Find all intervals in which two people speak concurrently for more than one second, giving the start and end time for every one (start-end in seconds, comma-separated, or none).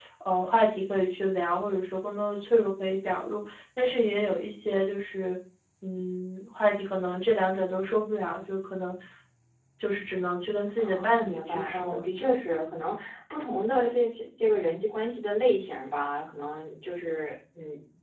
10.8-12.4